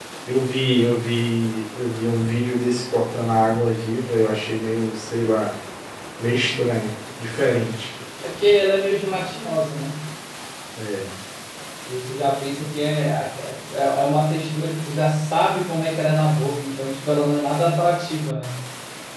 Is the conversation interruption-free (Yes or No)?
Yes